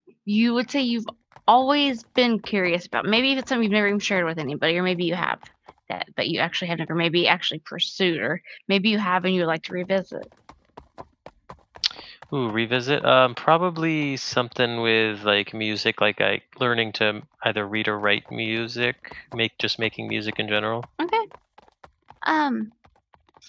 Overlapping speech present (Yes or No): No